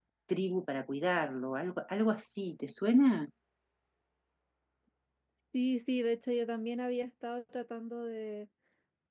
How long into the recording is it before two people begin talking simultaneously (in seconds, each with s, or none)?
none